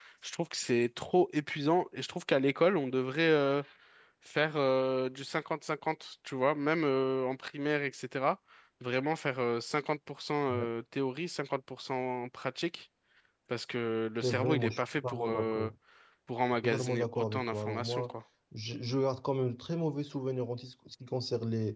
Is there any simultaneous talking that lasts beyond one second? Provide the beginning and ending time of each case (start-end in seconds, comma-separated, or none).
14.2-15.7, 16.6-18.1